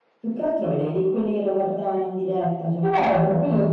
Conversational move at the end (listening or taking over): taking over